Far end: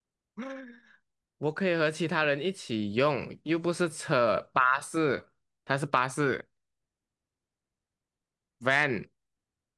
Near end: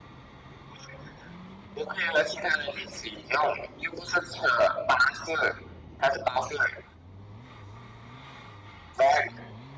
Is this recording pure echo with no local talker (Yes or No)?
Yes